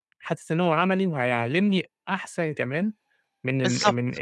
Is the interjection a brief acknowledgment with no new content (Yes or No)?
Yes